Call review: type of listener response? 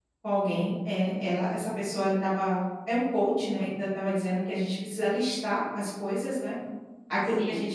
listening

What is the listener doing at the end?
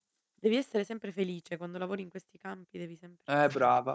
taking over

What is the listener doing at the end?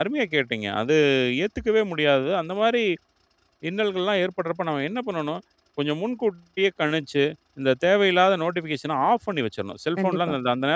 listening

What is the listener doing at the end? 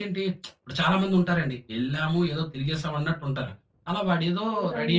taking over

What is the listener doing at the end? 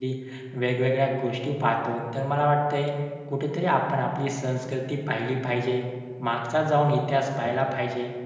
listening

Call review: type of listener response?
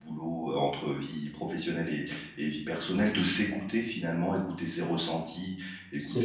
listening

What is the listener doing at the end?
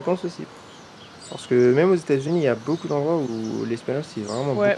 taking over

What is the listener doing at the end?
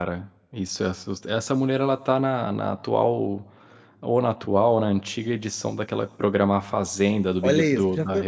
taking over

